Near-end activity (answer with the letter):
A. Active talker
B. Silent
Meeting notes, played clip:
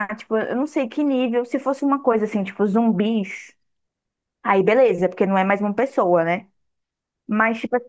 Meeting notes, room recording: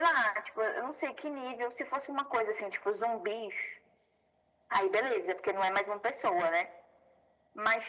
B